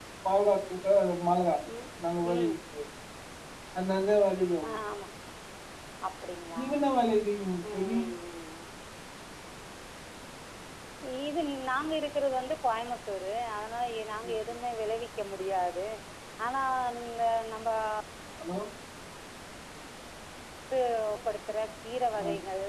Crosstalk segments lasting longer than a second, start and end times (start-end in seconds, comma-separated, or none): none